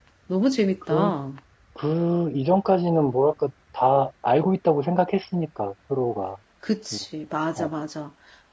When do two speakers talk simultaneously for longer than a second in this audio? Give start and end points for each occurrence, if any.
none

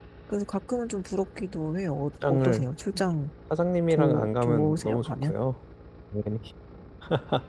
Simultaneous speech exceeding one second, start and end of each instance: 3.9-5.3

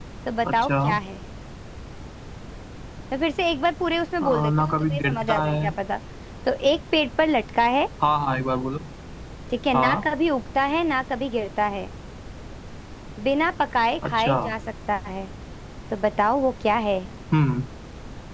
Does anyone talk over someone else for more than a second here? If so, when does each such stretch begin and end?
4.2-5.7

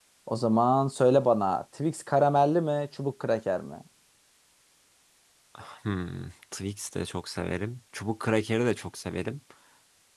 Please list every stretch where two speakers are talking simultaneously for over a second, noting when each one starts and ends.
none

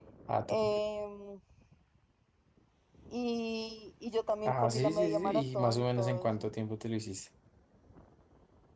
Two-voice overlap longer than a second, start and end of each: 4.5-6.5

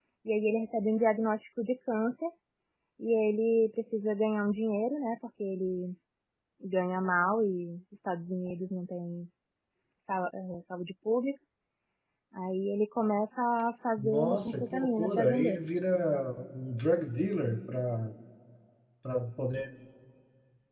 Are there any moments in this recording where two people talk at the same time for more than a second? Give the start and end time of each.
14.0-15.6

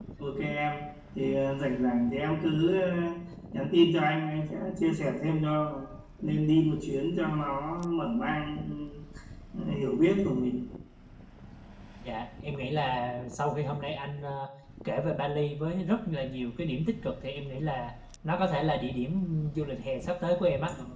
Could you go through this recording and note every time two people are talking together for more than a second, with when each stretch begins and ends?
none

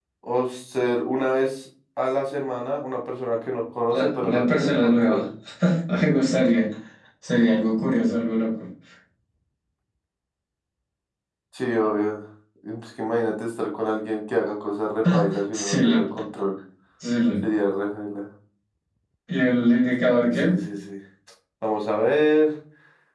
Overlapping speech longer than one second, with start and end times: 3.9-5.2

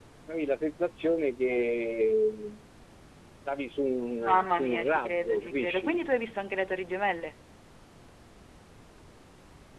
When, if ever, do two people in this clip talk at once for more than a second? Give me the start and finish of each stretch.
4.2-6.0

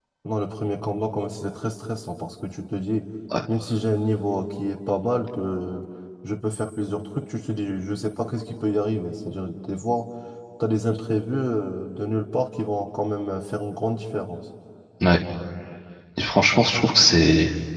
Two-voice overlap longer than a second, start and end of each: none

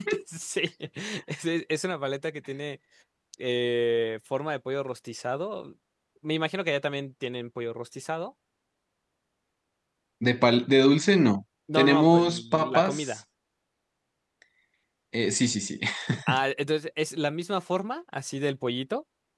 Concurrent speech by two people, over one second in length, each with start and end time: 11.8-13.2

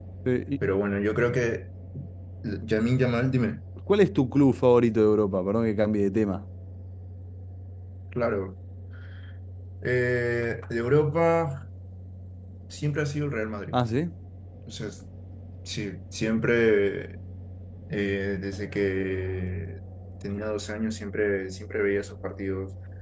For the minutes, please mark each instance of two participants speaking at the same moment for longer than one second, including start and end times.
none

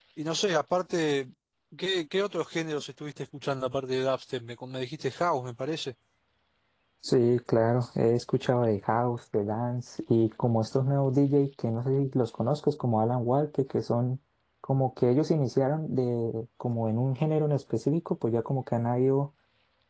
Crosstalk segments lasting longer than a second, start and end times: none

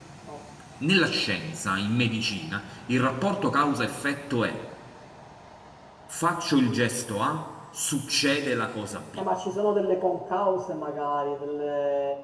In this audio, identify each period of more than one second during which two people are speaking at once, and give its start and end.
none

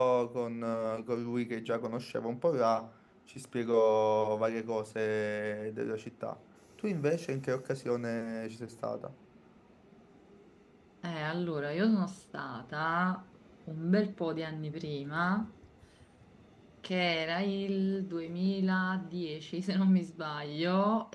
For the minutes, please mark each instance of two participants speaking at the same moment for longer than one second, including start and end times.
none

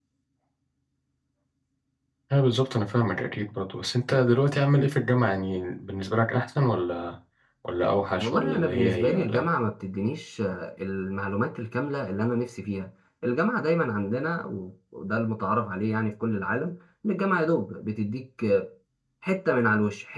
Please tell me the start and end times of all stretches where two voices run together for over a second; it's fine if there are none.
8.2-9.4

